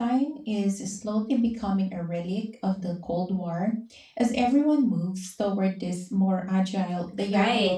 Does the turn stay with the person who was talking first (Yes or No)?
No